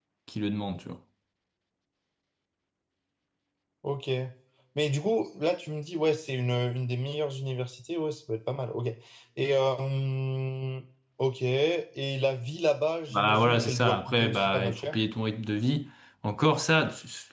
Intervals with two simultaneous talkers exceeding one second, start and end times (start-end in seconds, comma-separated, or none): 13.1-15.0